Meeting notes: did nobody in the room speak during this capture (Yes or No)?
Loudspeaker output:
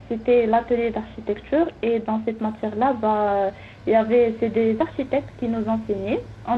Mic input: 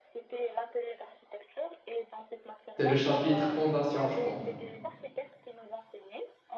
No